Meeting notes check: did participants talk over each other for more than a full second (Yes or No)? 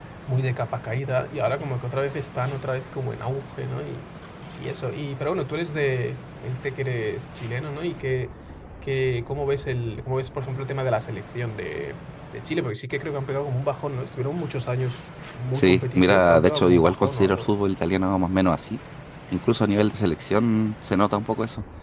Yes